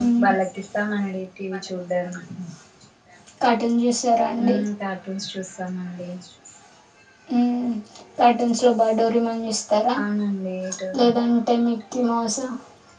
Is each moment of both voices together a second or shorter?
Yes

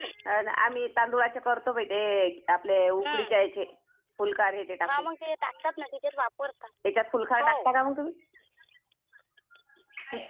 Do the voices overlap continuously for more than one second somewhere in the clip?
No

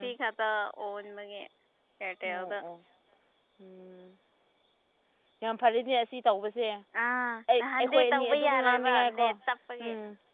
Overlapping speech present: Yes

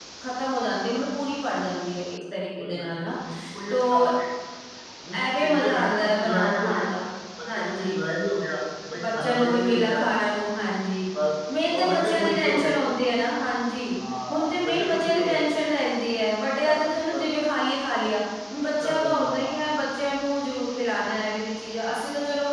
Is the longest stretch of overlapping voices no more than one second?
No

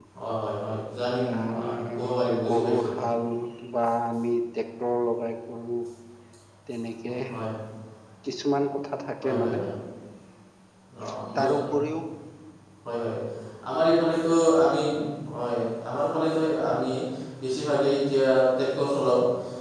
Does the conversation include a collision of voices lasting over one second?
Yes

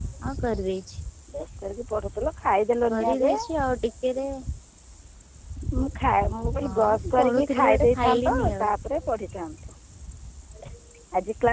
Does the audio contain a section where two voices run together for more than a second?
Yes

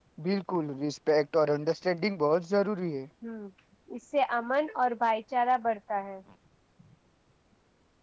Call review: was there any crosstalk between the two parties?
No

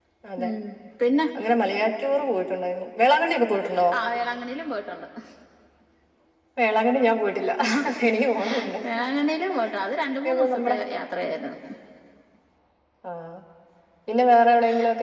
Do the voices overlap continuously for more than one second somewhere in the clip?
No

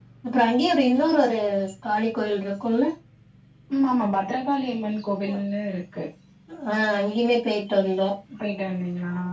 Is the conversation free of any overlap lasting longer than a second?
Yes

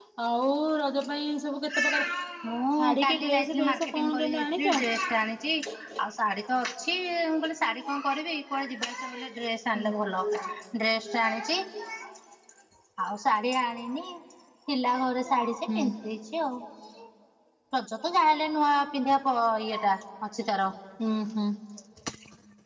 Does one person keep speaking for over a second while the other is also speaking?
Yes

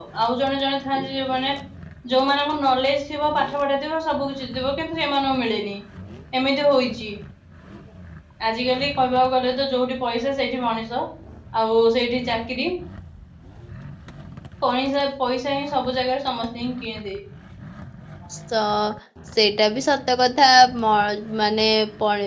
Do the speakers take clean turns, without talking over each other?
Yes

